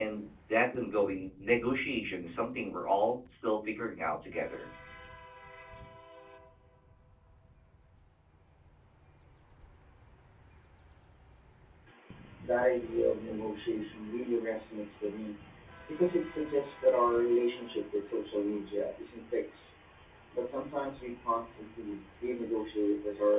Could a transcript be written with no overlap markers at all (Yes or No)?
Yes